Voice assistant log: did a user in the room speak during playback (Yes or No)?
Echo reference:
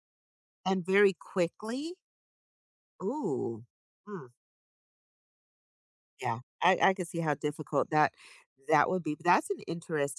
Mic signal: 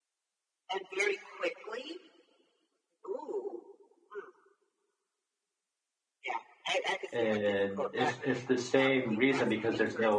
Yes